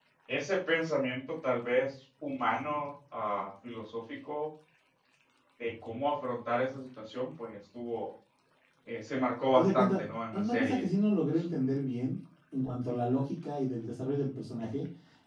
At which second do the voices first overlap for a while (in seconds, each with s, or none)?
9.6 s